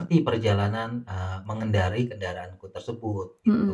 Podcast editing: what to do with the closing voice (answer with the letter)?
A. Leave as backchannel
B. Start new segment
B